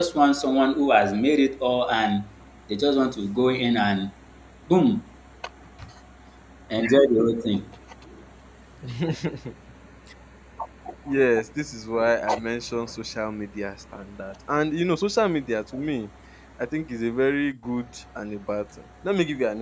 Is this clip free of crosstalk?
Yes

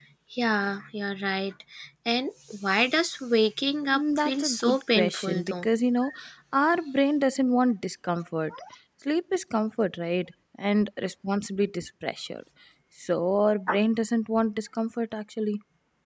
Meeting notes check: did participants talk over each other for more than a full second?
Yes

